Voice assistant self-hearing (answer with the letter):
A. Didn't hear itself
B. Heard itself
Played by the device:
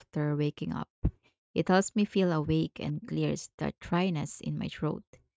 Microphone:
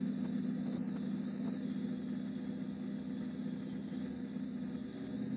A